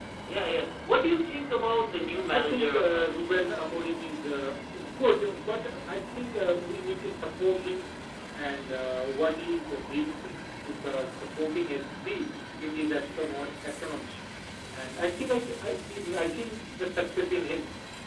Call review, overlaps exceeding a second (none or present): present